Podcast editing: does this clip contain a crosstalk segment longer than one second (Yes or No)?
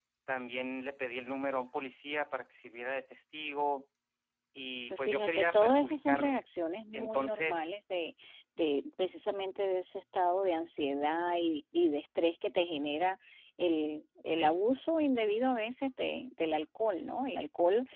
Yes